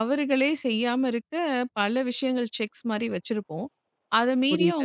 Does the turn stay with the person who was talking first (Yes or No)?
Yes